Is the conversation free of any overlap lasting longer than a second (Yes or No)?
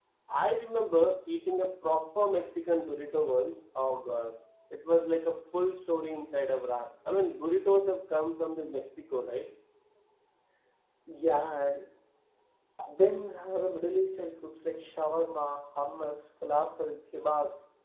Yes